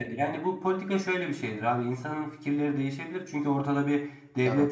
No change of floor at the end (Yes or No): Yes